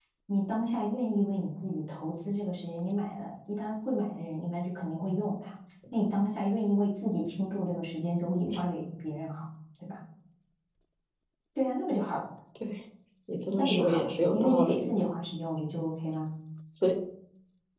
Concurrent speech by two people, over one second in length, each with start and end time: 13.6-14.9

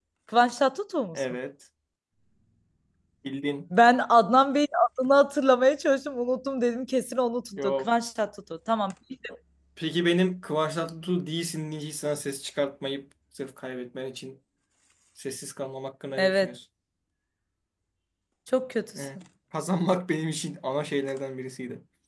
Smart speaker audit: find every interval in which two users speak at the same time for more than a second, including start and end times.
none

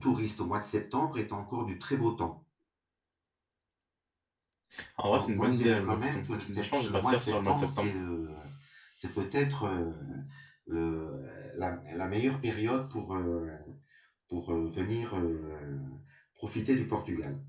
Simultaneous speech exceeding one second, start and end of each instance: 5.1-7.9

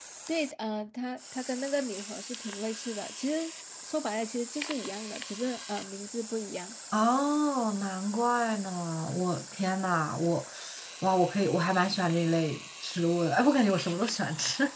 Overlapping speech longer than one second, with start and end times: none

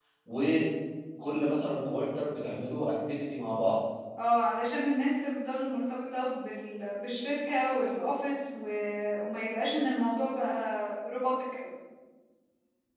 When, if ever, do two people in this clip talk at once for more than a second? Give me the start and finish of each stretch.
none

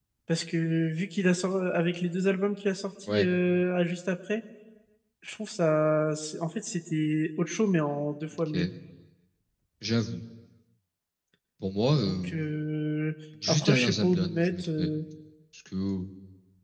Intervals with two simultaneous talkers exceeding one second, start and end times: 13.5-14.9

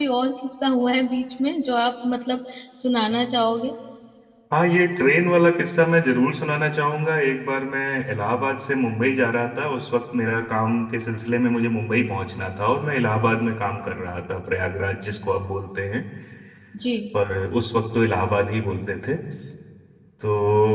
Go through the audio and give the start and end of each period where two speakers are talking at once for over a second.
none

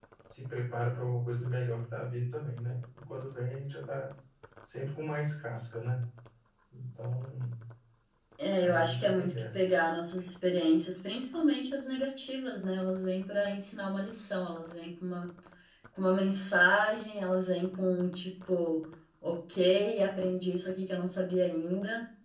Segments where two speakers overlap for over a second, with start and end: 8.6-9.9

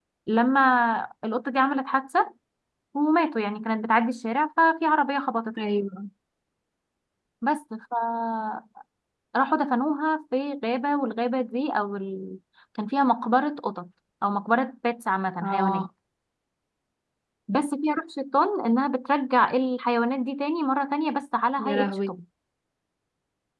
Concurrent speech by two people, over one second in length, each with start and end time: none

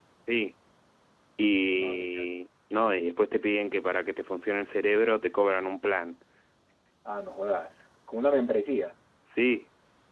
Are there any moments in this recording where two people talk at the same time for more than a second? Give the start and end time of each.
none

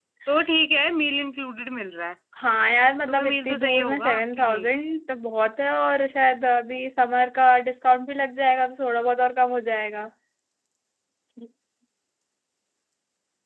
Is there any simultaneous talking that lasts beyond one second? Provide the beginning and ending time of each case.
3.1-4.7

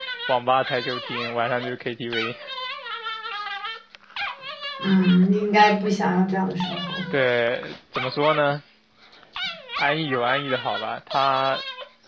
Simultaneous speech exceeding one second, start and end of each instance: none

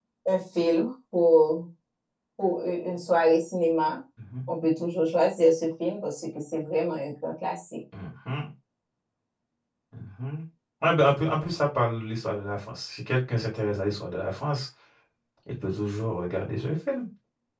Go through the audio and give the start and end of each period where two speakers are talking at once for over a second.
none

